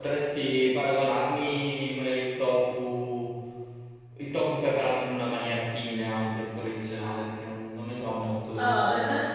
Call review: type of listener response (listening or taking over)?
taking over